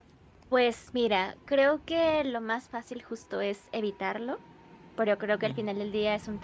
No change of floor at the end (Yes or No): Yes